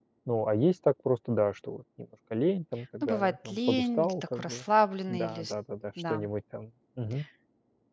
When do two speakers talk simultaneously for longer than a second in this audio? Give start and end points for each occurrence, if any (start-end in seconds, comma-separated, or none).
3.0-4.6